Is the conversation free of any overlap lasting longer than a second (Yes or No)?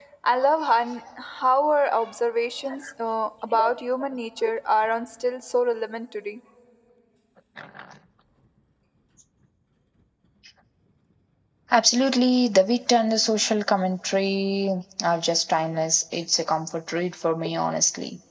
Yes